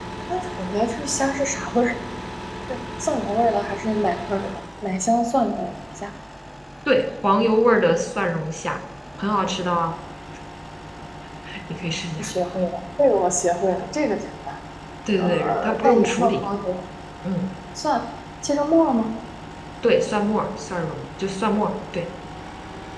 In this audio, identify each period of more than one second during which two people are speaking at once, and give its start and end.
15.2-16.4

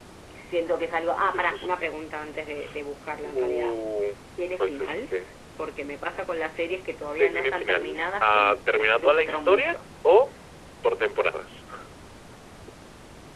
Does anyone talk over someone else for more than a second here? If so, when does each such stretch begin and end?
7.2-9.7

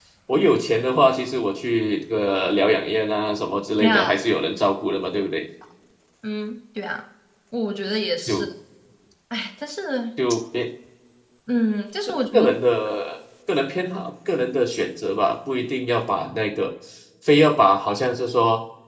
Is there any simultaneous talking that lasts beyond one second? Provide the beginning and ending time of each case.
none

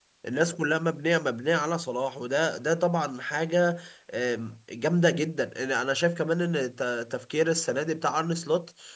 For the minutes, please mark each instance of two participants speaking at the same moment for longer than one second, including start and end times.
none

